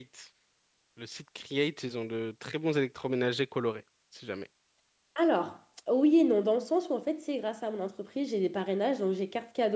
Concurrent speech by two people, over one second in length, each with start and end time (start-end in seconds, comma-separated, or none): none